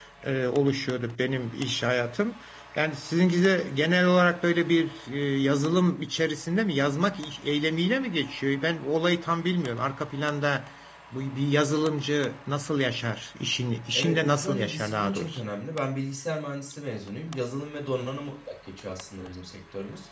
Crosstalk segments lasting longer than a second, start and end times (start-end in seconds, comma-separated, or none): 13.9-15.4